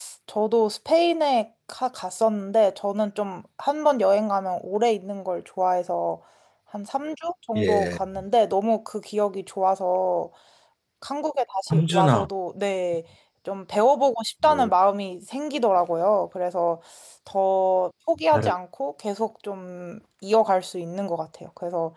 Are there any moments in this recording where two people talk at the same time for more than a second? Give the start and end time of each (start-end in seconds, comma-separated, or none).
none